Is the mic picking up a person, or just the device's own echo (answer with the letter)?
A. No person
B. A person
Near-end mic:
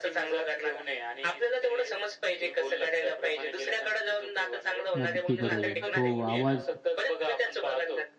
B